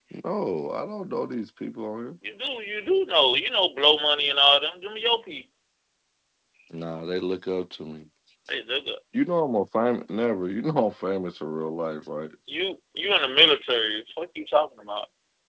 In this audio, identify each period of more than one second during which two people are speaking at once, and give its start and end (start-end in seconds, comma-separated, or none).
none